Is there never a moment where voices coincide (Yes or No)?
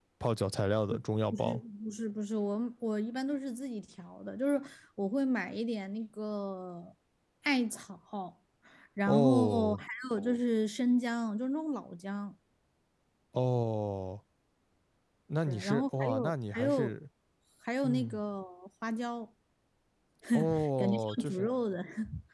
No